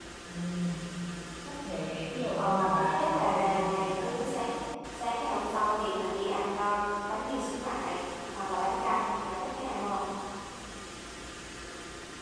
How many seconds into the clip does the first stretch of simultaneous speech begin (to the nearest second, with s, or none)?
2 s